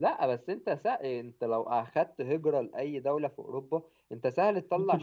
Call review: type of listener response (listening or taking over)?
taking over